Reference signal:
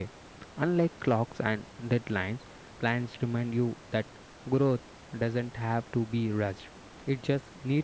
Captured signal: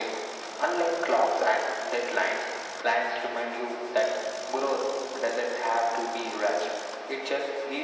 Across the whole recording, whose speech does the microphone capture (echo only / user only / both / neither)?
echo only